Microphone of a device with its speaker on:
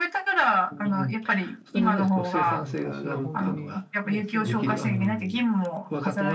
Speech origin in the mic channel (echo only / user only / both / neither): both